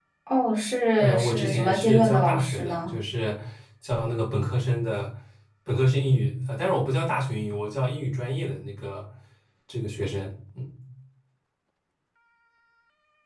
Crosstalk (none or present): present